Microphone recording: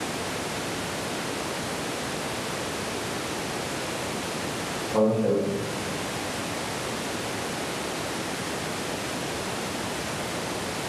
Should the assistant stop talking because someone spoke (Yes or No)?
Yes